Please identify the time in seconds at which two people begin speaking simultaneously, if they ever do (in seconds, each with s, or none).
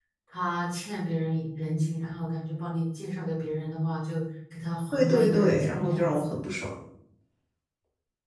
4.9 s